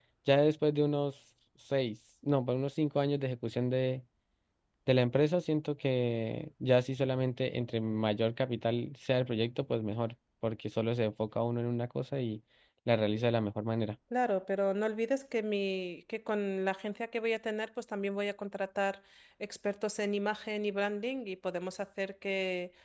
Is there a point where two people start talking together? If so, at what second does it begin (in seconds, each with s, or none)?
none